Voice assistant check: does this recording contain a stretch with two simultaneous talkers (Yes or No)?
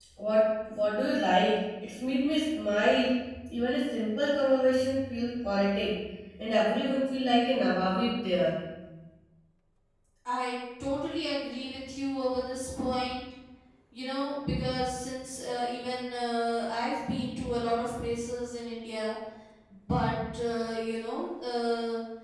No